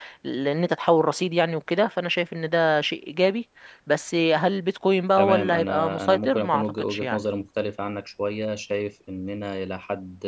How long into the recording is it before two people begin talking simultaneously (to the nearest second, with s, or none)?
5 s